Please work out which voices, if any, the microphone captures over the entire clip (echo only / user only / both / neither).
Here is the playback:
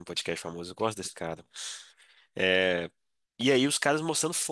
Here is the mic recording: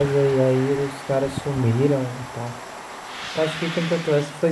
user only